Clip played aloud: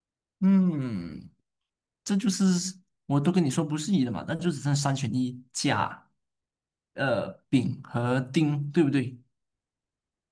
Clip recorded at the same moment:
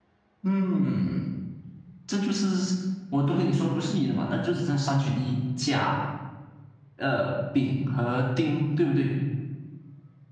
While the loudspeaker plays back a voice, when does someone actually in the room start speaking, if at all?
none

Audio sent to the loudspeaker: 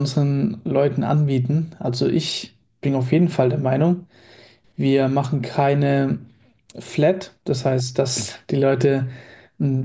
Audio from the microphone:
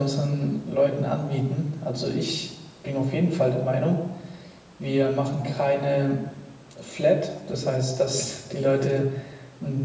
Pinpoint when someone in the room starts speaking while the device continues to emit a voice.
none

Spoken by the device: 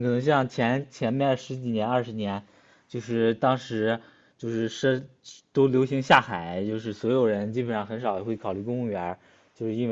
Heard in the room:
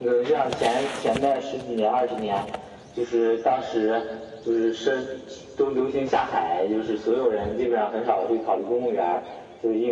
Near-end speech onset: none

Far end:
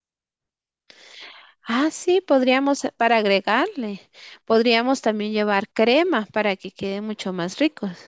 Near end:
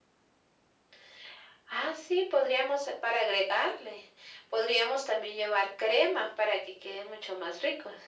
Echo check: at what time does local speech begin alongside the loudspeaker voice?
none

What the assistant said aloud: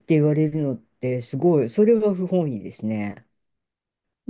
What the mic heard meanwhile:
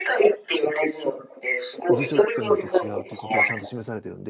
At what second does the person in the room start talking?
1.9 s

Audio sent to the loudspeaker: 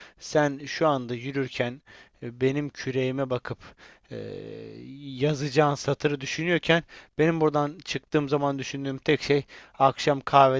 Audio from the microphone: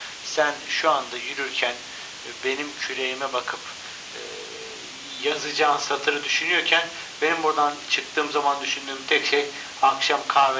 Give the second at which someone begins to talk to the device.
none

